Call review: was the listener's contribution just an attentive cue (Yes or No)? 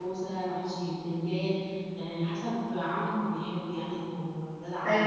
No